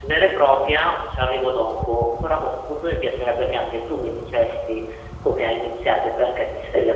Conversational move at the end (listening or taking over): listening